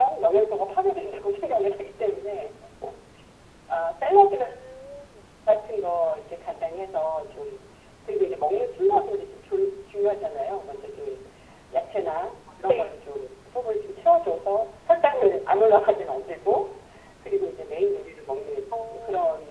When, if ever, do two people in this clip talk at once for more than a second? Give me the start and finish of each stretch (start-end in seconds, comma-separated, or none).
none